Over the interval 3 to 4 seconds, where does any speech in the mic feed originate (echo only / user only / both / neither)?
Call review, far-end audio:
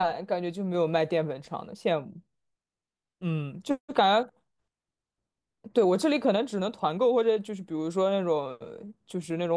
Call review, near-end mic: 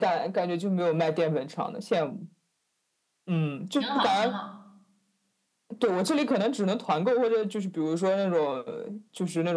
both